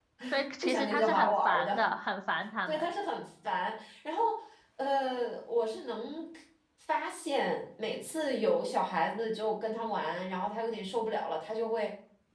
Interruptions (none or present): present